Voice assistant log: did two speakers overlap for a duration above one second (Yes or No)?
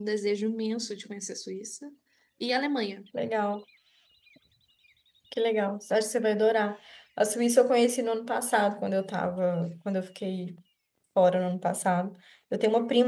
No